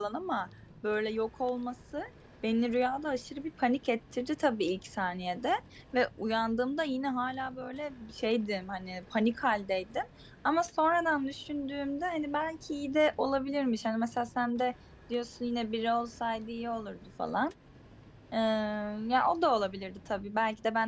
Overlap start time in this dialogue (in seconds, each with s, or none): none